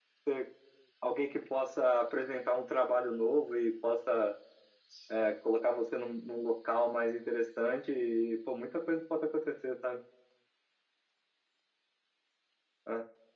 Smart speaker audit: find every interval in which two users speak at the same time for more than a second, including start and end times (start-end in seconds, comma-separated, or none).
none